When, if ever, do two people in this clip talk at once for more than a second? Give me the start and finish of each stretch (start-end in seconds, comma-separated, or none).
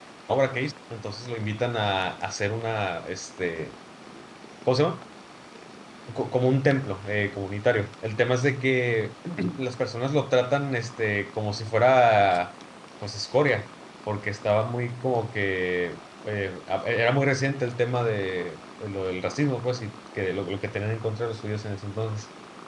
none